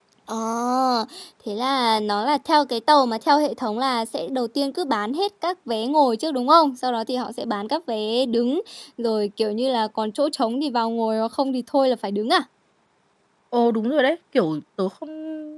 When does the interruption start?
none

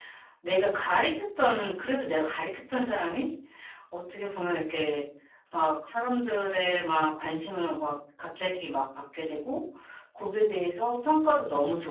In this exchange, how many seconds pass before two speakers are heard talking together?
none

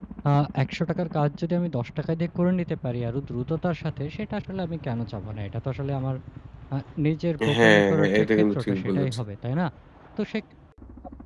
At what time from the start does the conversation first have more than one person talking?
7.5 s

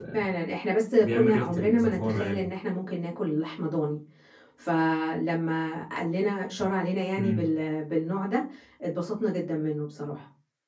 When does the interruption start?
1.0 s

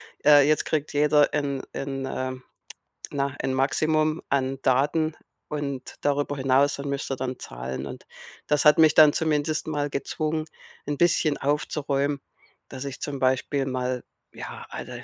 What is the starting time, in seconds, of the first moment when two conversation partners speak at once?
none

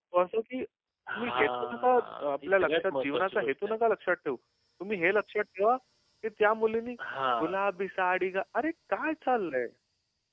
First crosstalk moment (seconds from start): 1.1 s

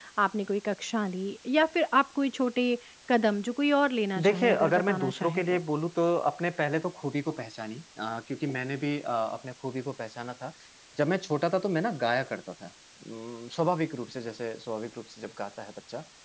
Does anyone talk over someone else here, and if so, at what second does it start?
4.2 s

